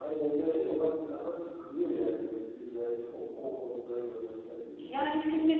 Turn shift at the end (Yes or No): Yes